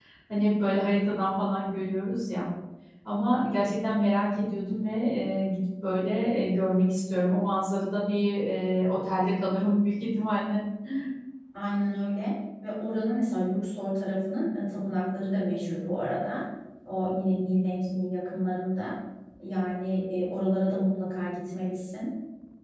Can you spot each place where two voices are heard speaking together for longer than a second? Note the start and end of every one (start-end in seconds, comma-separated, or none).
none